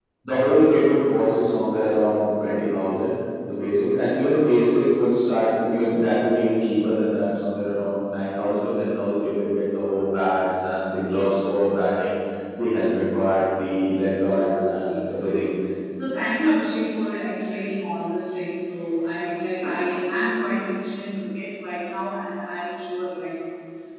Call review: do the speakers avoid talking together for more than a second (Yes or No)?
No